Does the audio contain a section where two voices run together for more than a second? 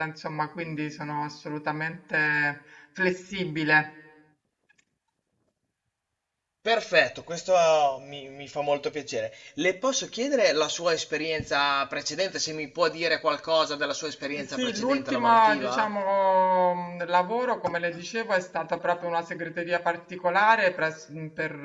Yes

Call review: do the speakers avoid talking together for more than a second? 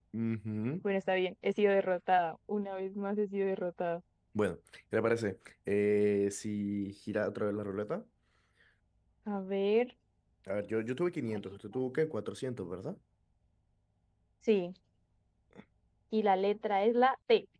Yes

